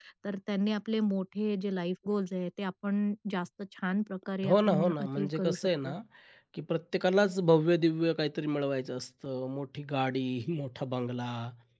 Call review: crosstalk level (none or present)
present